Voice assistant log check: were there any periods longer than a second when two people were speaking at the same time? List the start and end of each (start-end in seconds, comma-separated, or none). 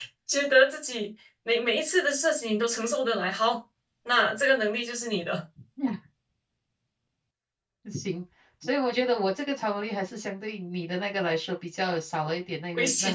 none